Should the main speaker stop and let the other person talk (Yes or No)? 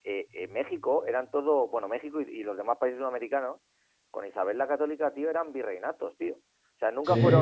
No